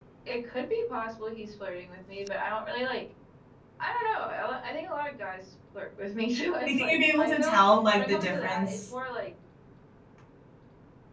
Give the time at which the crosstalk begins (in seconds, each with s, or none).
6.7 s